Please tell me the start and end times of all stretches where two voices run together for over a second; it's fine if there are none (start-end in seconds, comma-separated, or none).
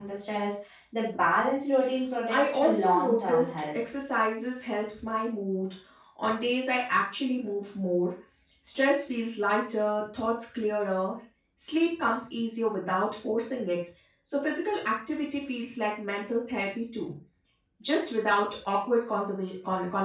2.3-3.8